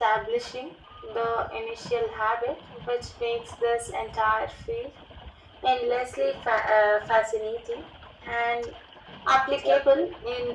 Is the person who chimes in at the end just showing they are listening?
Yes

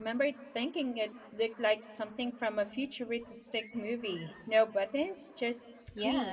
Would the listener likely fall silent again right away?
No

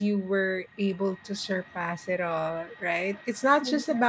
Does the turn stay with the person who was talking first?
Yes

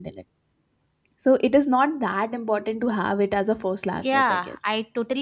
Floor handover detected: Yes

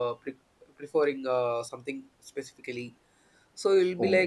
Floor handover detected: No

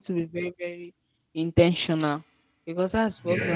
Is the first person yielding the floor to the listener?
No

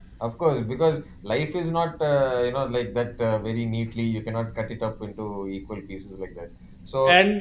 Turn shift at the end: No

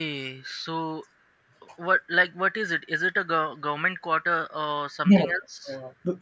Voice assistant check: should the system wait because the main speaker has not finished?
No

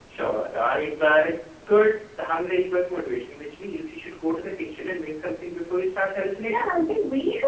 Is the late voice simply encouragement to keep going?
No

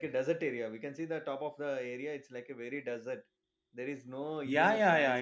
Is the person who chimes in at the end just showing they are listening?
No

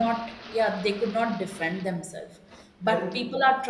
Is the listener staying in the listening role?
Yes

